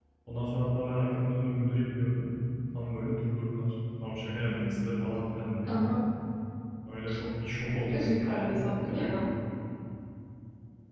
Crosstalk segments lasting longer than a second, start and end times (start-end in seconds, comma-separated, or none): 7.9-9.2